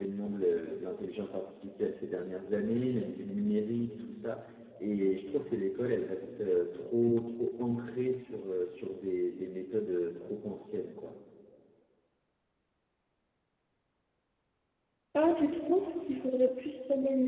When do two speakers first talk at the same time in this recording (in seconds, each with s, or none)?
none